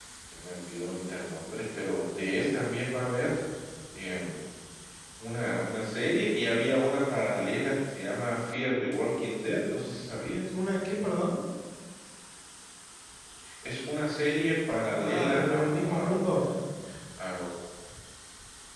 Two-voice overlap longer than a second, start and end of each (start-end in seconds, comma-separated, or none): 15.0-16.4